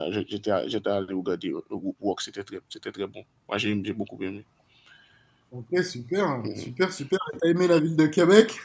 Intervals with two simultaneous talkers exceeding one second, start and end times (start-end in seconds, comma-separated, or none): none